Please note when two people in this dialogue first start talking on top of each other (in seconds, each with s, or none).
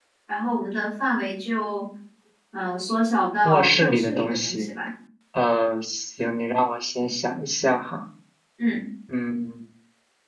3.5 s